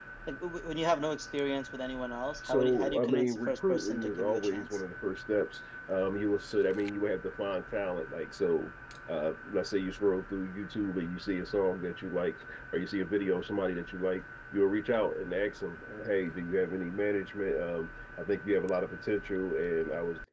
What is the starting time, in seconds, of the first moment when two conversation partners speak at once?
2.4 s

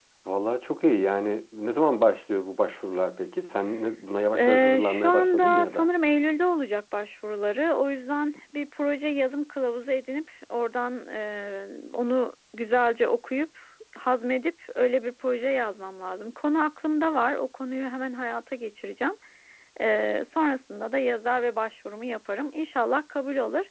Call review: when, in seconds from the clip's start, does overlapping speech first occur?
4.3 s

